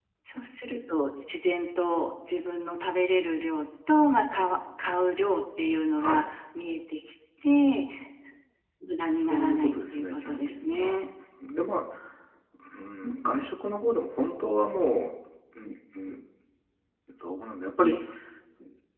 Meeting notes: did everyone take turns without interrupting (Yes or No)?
No